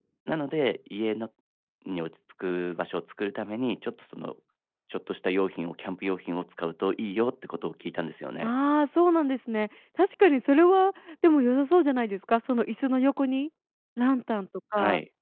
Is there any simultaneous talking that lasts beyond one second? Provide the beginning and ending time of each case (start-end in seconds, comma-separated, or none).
none